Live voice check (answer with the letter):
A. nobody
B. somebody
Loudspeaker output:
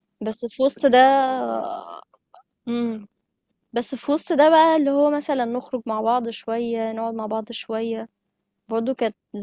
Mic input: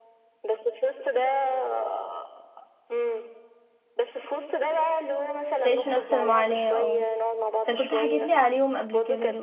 B